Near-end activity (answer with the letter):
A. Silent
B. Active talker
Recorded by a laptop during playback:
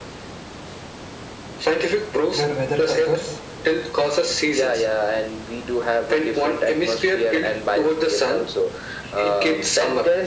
B